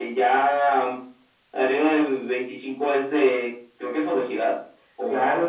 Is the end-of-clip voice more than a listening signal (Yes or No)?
Yes